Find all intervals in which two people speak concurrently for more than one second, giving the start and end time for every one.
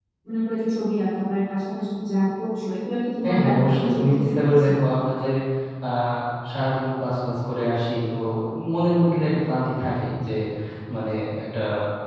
3.2-4.7

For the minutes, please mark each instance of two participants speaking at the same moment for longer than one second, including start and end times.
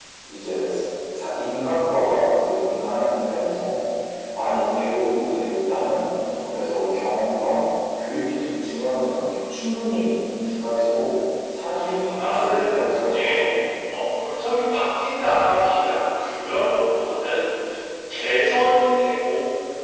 12.2-13.4

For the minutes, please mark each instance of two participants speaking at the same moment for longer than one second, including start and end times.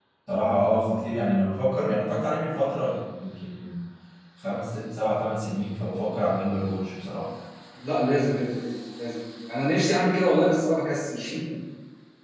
none

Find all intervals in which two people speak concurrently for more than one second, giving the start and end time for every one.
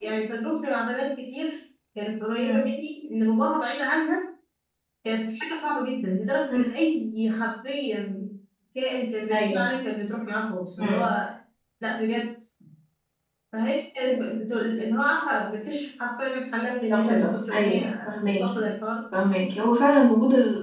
16.9-18.6

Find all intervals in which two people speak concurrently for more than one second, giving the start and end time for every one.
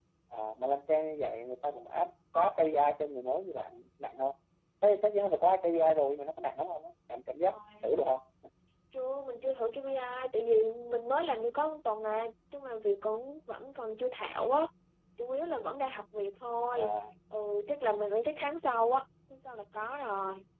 none

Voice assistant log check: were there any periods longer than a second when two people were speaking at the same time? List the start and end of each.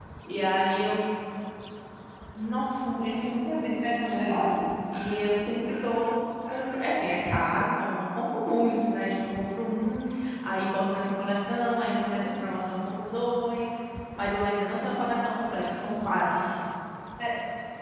2.9-4.4

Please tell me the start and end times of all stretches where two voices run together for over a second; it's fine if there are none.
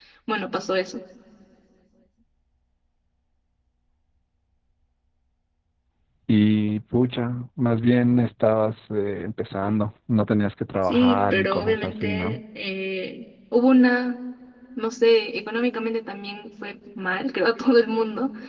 10.8-12.4

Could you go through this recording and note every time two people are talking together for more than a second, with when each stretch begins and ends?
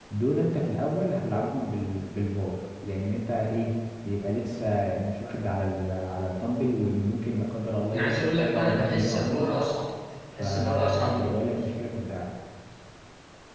7.9-9.6, 10.4-11.6

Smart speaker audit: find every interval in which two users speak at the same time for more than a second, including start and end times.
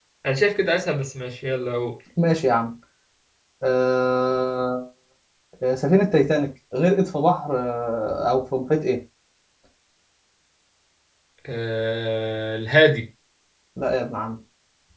none

